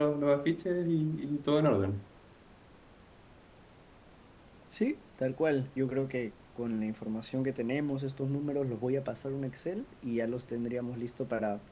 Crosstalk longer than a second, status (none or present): none